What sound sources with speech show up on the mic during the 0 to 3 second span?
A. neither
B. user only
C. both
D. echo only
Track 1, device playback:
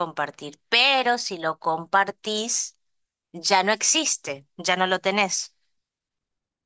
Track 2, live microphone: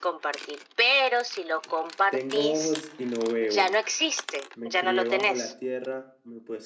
C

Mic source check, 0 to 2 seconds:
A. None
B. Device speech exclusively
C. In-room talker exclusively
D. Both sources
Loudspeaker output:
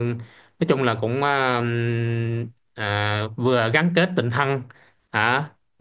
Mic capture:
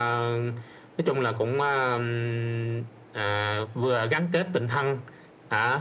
B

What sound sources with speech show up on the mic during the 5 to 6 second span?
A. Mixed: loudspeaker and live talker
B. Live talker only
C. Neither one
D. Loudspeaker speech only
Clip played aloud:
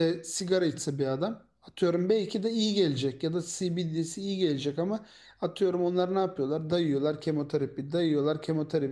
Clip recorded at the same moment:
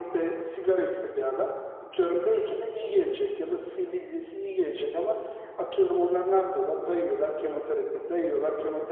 D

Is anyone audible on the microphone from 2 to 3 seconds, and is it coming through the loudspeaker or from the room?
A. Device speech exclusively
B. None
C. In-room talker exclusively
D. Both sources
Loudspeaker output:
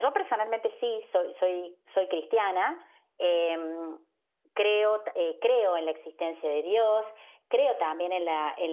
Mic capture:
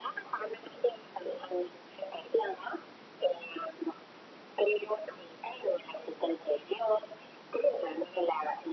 A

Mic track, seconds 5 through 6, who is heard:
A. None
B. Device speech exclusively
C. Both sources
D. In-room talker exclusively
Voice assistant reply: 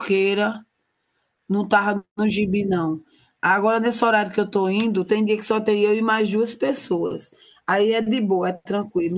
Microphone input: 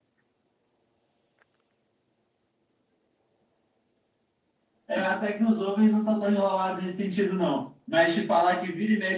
D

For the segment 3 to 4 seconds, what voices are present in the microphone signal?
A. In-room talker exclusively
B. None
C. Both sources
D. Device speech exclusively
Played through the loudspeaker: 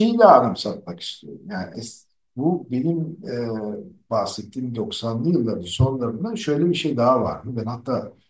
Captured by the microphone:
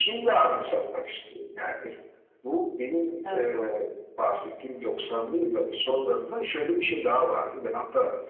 C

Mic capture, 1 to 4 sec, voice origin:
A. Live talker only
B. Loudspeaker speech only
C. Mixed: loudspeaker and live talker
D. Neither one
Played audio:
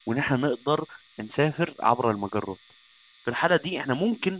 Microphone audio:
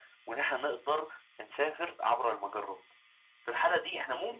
B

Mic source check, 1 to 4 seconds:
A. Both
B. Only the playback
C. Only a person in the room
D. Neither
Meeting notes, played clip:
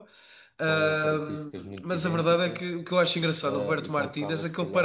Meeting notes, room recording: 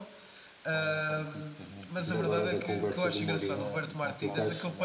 A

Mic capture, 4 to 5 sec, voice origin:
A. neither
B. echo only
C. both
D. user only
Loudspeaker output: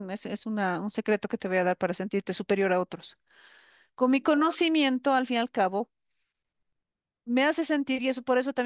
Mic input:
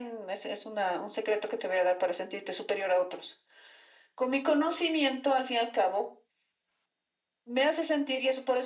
B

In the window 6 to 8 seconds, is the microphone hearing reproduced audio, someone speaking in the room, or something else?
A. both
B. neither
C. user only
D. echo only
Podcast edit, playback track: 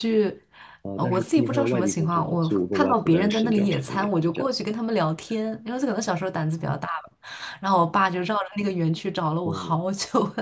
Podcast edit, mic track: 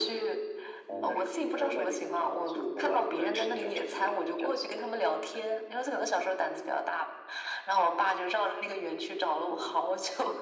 D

